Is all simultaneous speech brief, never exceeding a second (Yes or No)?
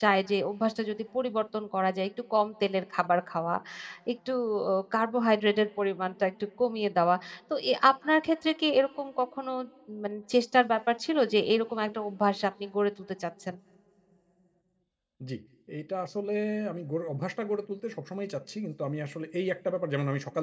Yes